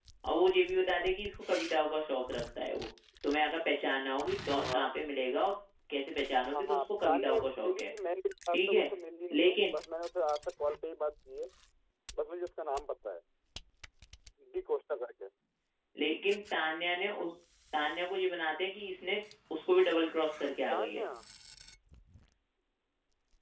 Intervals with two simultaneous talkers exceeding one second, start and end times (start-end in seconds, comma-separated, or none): 6.5-7.9